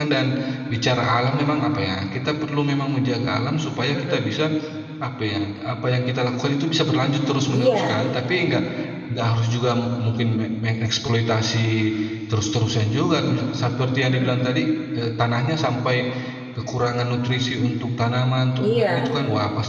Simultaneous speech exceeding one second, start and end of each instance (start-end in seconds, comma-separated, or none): none